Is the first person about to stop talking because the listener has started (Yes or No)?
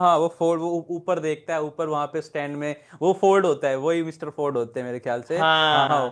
Yes